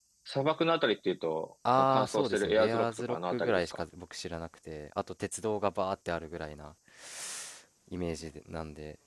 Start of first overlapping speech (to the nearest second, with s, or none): 2 s